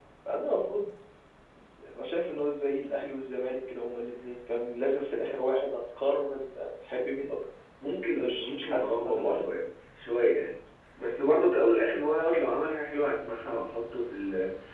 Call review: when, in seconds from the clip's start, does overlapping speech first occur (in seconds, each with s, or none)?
8.2 s